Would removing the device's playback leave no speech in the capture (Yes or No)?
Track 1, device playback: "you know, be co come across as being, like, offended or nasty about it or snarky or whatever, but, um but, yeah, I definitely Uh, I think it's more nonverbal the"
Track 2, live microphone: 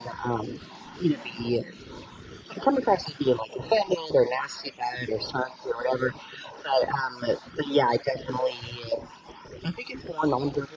Yes